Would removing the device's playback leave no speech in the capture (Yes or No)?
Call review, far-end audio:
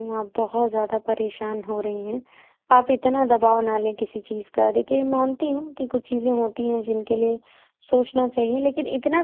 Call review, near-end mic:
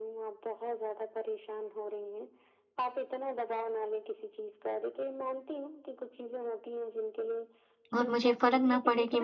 No